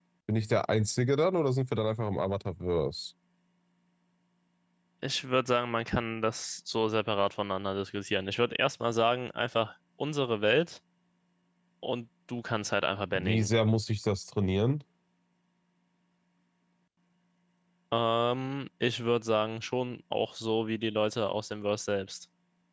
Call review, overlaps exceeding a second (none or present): none